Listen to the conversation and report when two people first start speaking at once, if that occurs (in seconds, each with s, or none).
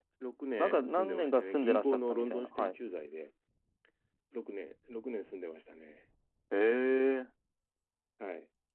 0.6 s